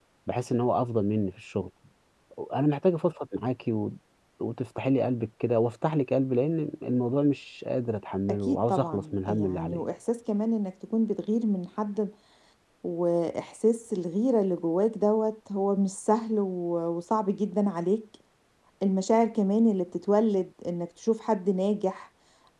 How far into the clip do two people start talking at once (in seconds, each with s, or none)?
8.3 s